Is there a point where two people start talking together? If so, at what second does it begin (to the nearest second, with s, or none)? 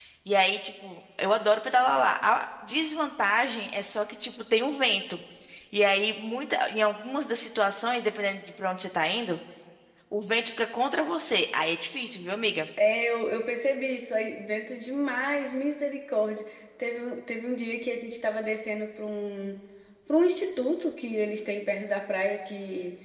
none